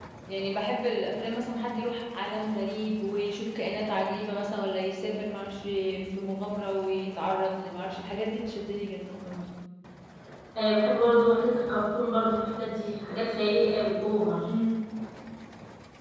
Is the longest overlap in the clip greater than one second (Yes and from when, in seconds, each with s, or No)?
No